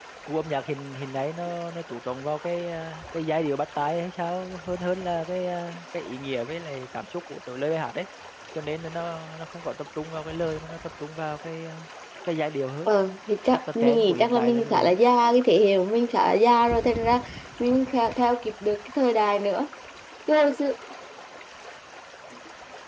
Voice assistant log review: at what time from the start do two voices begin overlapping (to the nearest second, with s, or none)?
14 s